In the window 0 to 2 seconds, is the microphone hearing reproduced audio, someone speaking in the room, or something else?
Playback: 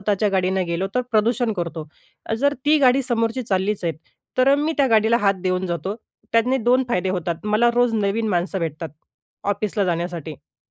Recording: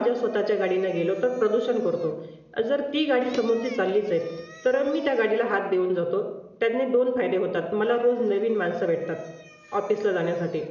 echo only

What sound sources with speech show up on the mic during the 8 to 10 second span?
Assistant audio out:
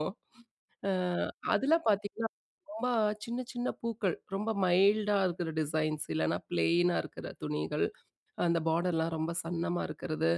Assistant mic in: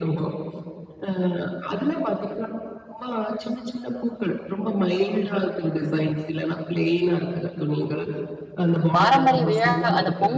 both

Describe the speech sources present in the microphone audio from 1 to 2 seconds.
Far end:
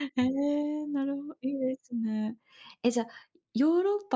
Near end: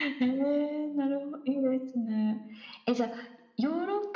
echo only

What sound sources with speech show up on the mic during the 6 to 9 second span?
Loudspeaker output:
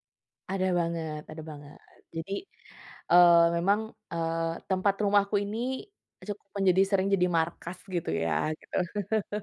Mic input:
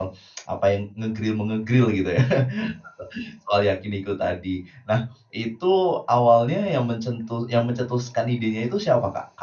user only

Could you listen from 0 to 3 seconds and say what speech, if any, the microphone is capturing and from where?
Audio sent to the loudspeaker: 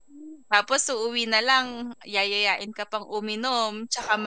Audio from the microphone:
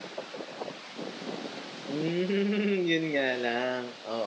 user only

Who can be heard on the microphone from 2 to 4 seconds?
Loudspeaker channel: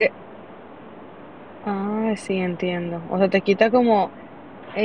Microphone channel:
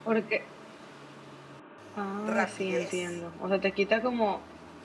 both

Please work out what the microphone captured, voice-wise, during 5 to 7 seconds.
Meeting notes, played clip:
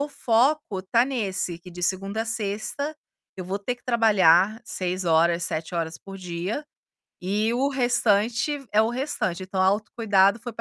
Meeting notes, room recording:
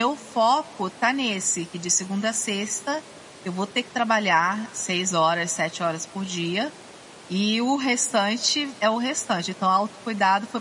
echo only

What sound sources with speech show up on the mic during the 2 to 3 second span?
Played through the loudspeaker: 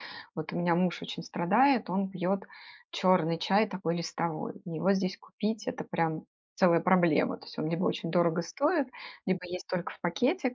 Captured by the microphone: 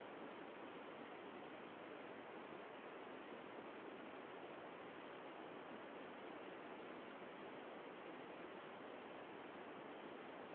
neither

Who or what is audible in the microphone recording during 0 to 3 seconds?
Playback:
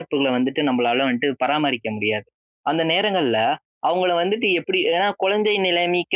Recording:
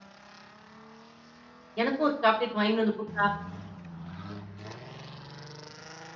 user only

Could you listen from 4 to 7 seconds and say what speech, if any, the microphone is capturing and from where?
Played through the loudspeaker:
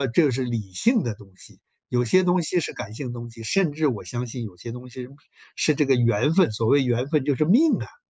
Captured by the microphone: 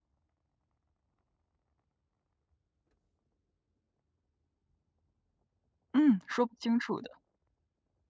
user only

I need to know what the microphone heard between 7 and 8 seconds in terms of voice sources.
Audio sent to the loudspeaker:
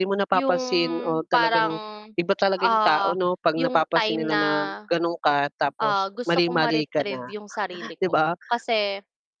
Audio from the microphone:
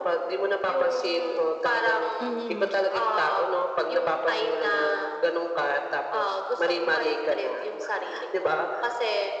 echo only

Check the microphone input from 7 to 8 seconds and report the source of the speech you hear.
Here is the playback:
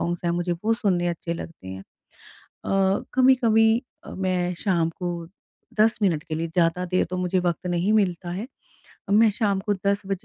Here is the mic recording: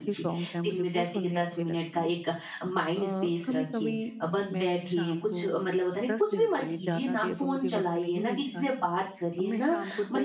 both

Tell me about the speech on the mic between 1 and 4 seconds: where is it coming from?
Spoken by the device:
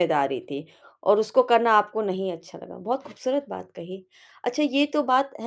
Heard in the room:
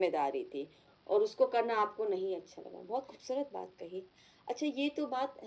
echo only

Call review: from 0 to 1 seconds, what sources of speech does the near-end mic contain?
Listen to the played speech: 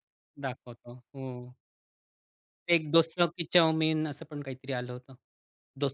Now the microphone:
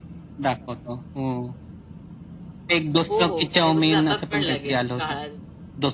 echo only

